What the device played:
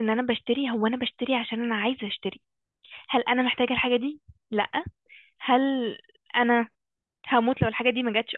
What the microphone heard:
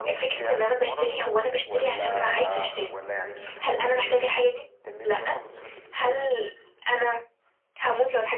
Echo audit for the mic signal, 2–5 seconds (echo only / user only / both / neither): both